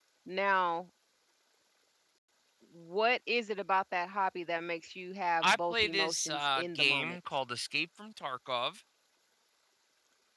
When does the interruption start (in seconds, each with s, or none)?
5.7 s